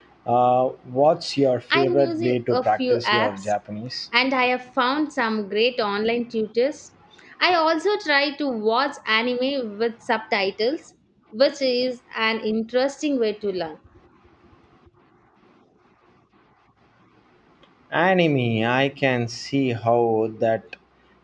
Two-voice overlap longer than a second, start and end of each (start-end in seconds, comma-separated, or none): 1.7-3.5